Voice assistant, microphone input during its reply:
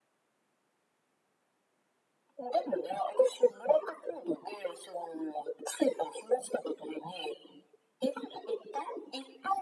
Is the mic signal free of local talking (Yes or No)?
Yes